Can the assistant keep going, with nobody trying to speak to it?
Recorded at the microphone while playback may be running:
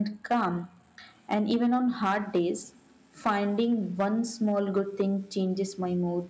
No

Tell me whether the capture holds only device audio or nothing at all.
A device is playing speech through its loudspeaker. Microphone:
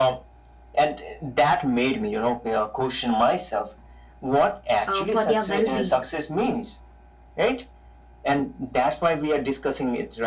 No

